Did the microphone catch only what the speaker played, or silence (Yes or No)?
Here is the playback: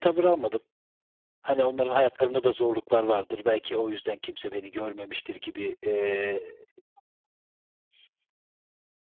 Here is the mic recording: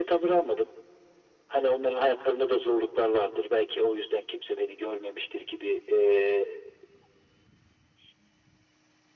Yes